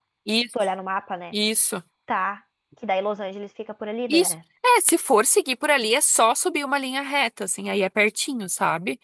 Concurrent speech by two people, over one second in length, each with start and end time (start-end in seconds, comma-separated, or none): none